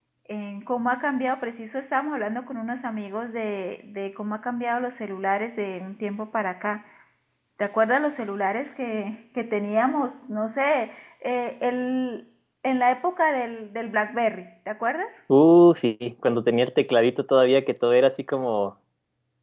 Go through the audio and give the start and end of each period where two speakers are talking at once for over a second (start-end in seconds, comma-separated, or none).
none